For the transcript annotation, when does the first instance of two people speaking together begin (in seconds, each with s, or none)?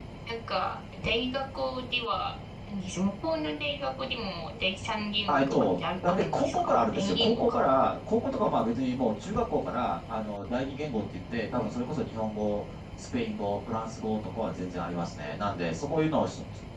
5.3 s